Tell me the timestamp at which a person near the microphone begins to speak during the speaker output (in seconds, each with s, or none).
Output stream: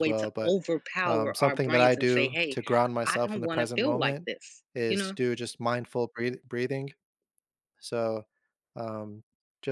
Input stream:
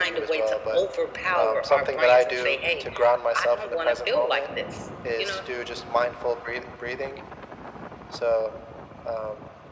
none